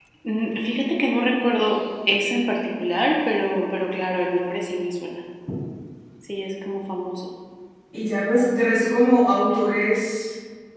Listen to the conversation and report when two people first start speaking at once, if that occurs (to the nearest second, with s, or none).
none